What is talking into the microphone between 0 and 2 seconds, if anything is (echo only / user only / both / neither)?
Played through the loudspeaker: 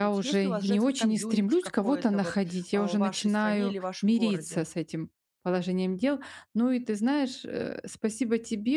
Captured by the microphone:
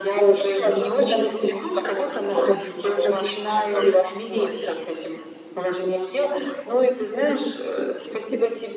echo only